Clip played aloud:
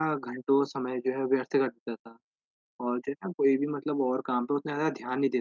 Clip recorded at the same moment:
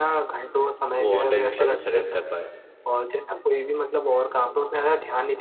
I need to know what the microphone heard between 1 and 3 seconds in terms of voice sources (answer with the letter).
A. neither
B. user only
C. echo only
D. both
D